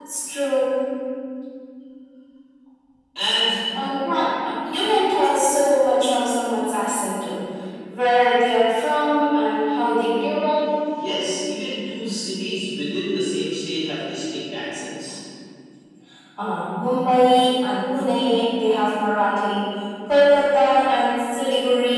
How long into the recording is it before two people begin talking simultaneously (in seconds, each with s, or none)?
none